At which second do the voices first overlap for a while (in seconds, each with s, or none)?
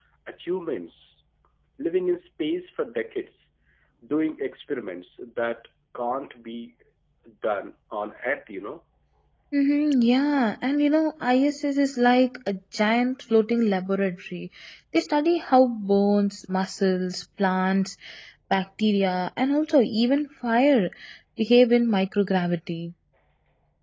none